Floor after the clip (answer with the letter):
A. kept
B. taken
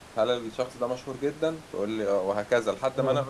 B